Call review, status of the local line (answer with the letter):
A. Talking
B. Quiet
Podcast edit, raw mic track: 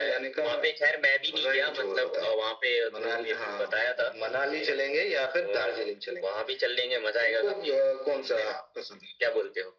B